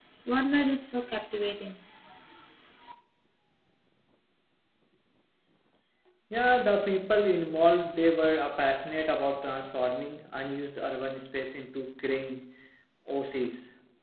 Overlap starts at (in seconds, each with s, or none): none